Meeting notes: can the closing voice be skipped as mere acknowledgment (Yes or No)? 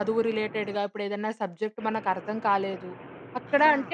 Yes